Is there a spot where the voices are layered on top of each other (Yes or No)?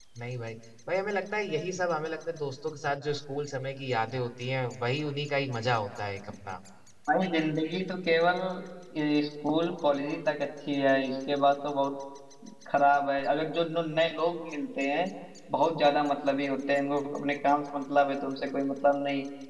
No